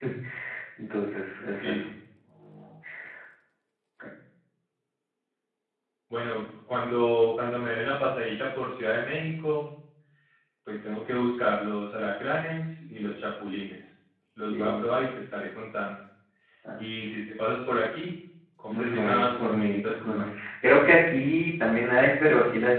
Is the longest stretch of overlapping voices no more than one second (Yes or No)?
No